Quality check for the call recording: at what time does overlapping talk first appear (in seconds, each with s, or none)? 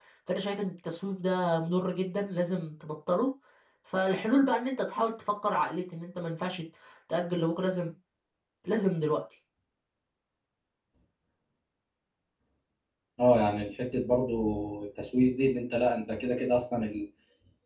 none